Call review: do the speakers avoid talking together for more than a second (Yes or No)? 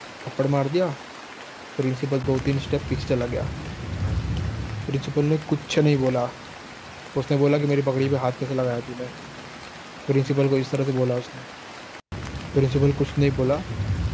Yes